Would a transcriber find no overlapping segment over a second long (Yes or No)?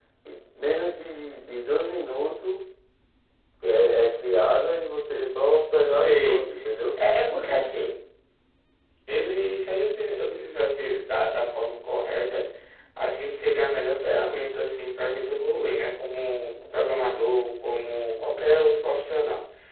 Yes